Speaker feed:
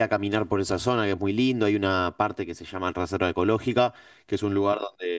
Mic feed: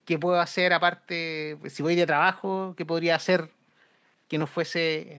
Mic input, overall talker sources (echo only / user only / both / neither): user only